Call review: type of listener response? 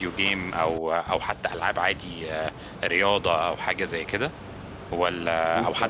listening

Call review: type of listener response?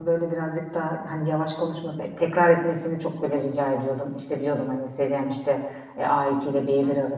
listening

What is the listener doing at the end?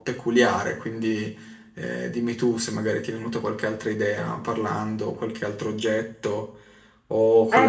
taking over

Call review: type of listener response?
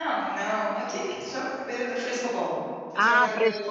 taking over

